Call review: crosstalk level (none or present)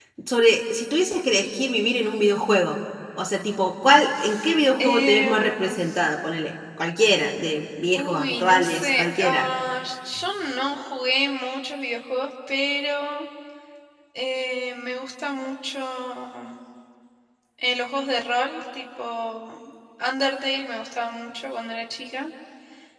present